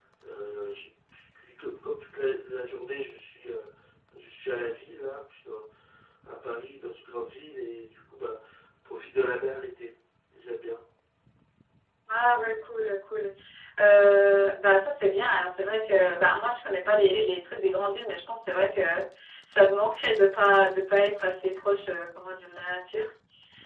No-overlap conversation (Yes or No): Yes